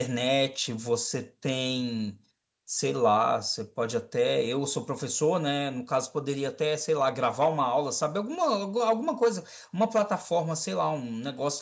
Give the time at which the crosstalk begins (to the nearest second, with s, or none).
none